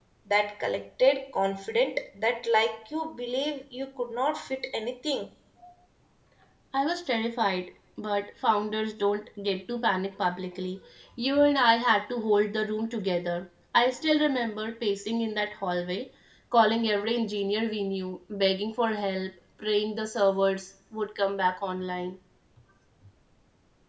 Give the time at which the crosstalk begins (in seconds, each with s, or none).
none